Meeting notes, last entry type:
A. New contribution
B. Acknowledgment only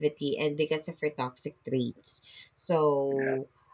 B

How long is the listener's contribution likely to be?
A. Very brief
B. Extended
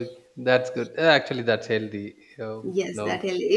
B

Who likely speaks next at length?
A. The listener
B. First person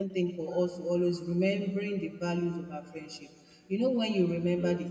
B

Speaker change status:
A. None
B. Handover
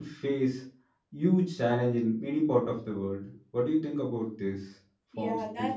B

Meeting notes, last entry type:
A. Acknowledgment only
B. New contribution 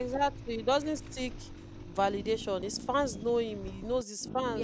A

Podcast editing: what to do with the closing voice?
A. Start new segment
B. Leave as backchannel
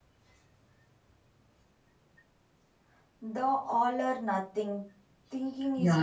A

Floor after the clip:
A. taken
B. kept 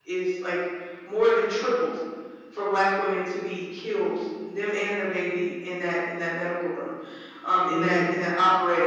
B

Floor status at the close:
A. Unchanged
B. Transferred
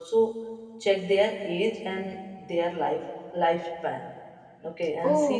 A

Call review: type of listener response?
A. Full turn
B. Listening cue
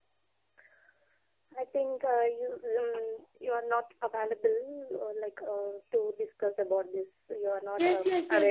A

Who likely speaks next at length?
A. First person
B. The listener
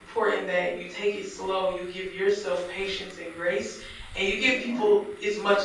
A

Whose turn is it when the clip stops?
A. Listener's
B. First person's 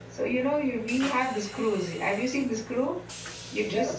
B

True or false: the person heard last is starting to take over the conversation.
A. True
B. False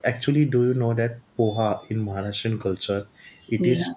A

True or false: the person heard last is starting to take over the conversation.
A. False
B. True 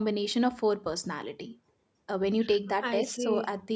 A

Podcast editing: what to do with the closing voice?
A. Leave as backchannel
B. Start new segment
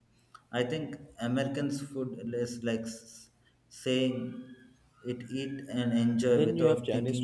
B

